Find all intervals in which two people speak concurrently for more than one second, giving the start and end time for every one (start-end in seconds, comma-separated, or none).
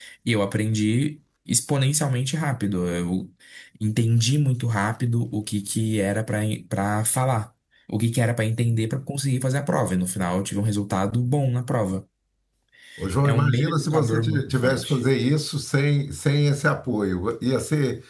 13.2-15.0